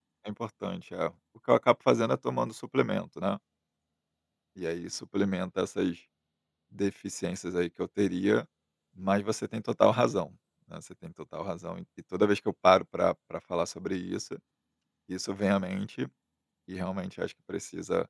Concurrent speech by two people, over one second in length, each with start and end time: none

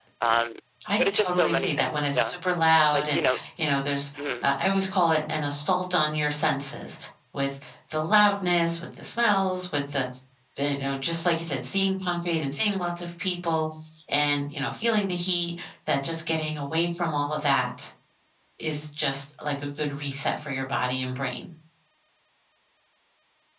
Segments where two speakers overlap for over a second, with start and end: 1.0-2.4

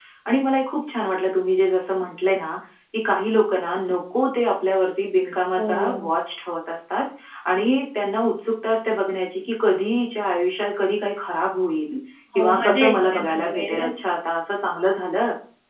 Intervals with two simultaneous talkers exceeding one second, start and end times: 12.3-13.8

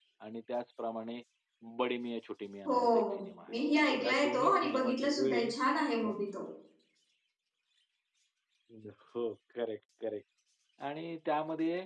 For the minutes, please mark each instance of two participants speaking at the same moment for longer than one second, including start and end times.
4.0-5.5

